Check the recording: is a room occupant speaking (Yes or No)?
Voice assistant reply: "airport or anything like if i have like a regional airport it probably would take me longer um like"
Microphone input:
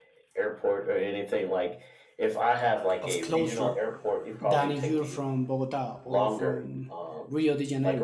Yes